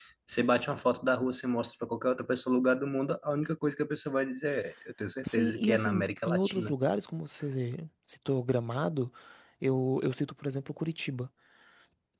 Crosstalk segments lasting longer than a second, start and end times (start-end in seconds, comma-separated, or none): 5.3-6.7